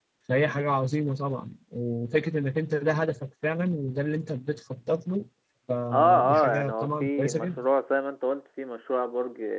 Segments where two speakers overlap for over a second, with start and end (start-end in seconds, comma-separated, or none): 5.9-7.6